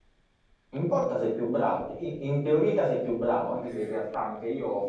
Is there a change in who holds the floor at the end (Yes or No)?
No